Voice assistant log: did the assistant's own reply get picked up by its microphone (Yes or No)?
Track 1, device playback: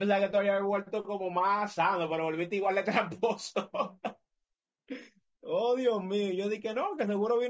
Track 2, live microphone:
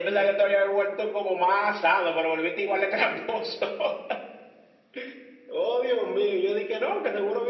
Yes